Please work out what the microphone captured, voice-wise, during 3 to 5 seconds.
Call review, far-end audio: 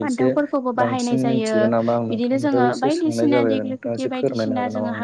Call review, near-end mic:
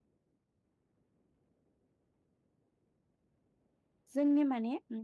user only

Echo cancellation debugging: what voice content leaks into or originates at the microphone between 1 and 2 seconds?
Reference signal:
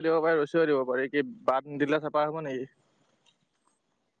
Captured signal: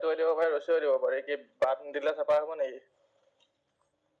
echo only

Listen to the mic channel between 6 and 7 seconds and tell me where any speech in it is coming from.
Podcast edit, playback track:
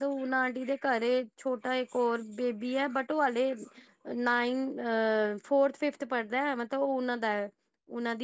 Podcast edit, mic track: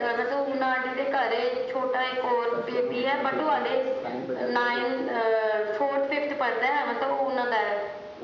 echo only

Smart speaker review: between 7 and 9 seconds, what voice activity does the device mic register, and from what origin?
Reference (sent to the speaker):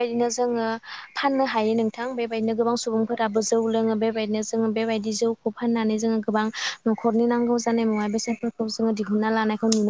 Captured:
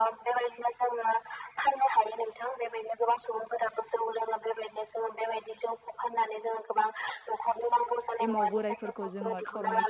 both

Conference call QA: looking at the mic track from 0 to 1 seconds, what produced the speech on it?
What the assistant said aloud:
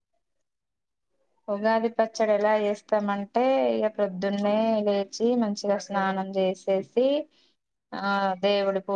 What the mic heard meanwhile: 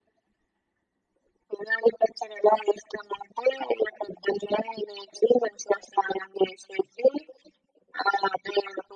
neither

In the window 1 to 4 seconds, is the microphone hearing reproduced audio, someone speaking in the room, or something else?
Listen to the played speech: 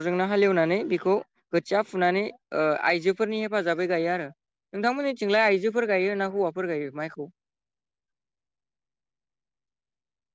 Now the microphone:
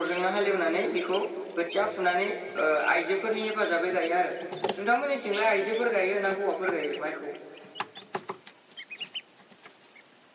echo only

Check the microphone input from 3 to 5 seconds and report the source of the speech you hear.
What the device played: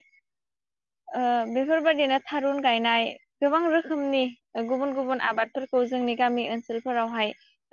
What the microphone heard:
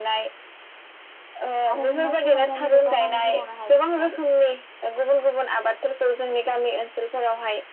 both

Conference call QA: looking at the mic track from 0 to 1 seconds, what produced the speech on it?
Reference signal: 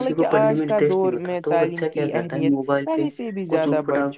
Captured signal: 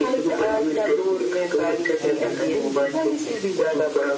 echo only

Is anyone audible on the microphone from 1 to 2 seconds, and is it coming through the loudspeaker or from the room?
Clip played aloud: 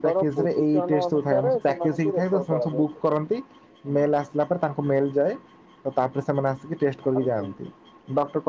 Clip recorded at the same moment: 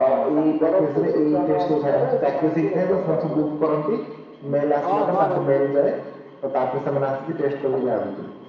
echo only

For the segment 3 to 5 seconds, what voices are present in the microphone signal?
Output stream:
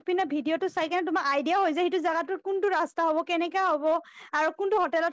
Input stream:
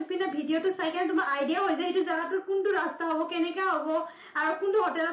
echo only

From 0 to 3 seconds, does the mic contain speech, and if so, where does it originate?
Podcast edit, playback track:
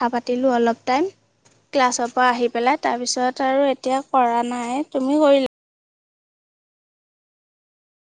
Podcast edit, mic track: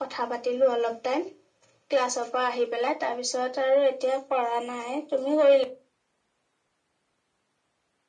echo only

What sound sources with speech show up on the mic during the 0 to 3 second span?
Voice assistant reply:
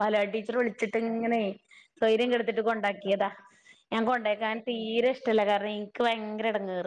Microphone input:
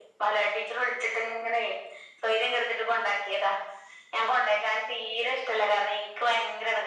echo only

